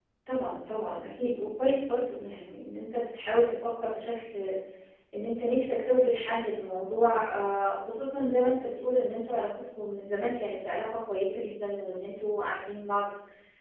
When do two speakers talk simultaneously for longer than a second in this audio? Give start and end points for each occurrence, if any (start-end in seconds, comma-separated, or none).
none